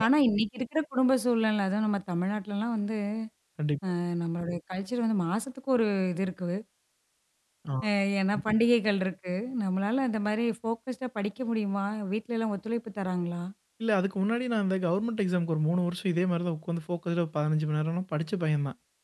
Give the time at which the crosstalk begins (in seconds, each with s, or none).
none